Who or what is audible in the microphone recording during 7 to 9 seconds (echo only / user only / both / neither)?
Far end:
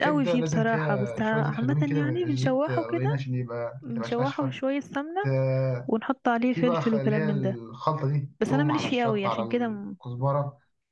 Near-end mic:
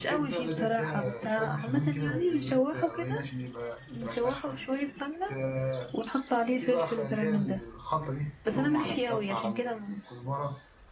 echo only